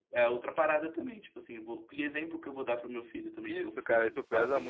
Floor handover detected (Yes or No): Yes